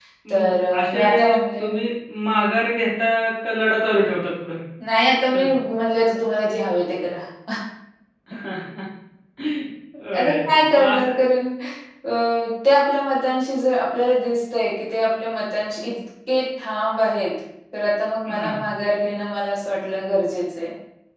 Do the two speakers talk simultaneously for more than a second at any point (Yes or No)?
Yes